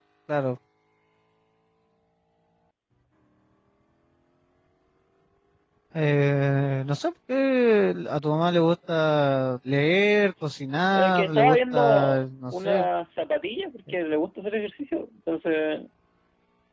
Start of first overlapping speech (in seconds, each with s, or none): 10.9 s